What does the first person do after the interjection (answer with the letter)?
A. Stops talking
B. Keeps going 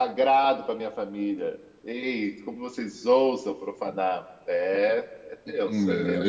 A